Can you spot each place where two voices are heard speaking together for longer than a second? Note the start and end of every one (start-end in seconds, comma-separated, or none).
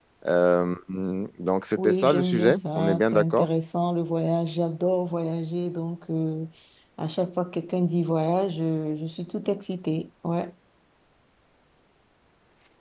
1.8-3.5